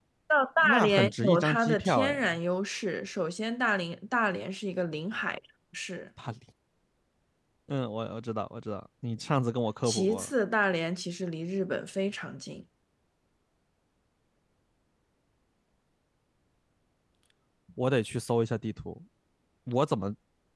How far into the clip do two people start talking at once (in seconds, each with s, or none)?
0.6 s